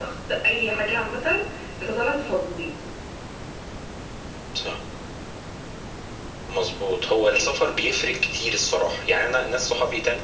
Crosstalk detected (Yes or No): No